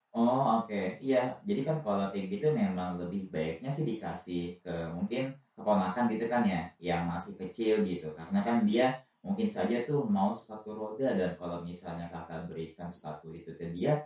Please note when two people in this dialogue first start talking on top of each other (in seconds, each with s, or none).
none